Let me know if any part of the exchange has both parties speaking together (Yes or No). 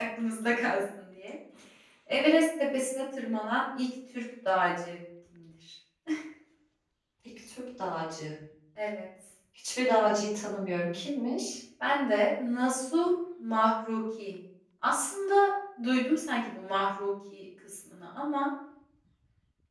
No